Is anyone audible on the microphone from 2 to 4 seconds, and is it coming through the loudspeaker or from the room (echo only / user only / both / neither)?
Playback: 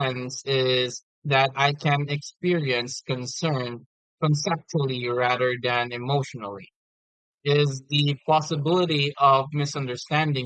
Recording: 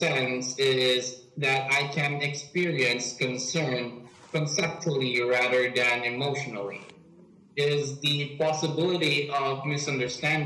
echo only